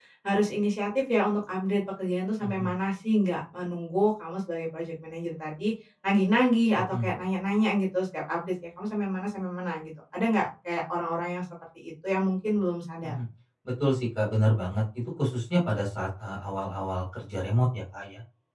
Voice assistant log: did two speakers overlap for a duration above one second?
No

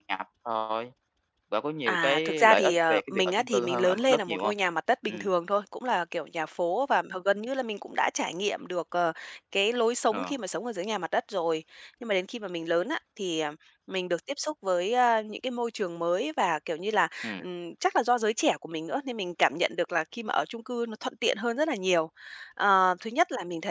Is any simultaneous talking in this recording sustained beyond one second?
Yes, from 1.9 s

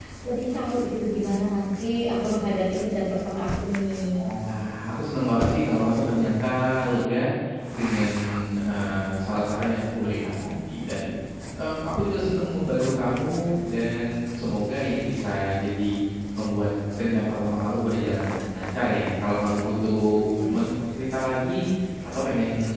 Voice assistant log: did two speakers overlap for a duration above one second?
No

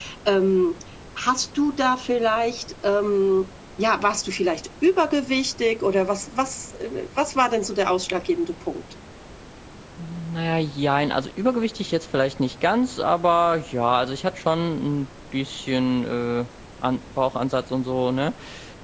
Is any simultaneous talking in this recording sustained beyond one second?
No

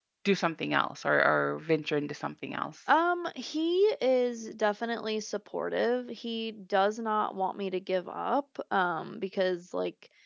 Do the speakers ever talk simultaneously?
No

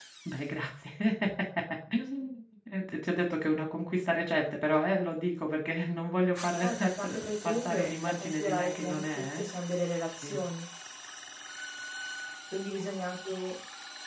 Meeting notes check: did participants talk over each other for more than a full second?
Yes, from 6.6 s

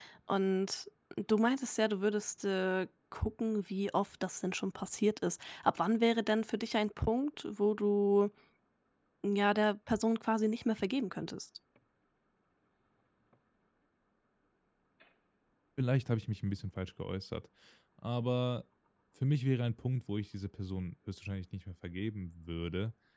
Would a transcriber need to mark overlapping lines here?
No

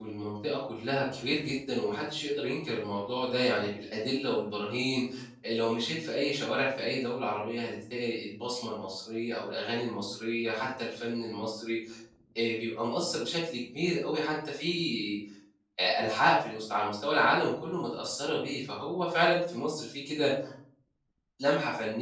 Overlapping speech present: No

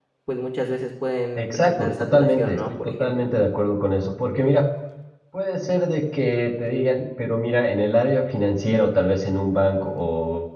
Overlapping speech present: Yes, from 1.4 s

